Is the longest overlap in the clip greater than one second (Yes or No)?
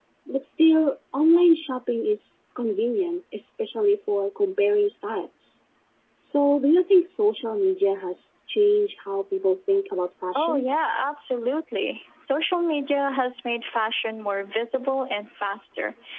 No